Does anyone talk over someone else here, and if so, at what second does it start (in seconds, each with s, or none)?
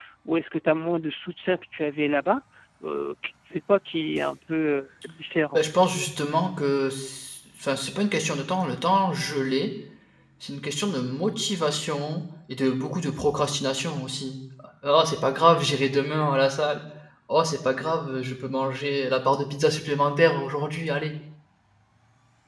none